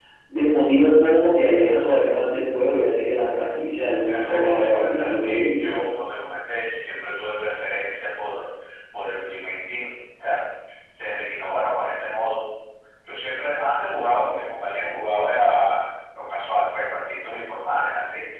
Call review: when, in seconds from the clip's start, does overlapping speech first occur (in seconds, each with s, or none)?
4.0 s